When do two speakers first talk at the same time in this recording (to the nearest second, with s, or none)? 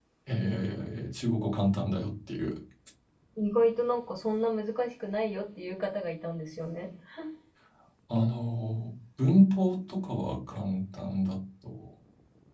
none